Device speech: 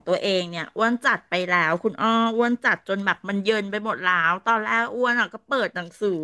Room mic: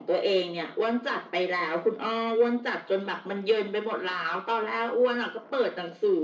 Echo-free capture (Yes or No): No